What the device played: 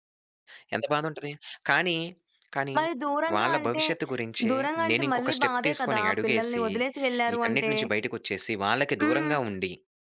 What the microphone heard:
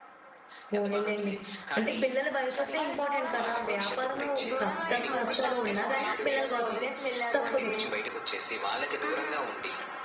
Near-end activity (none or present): present